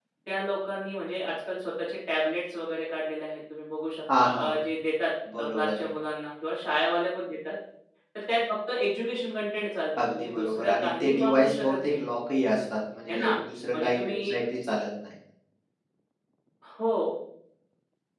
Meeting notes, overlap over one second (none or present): present